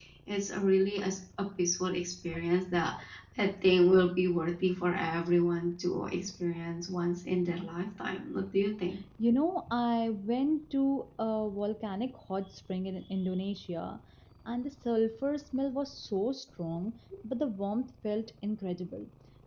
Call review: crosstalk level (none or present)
none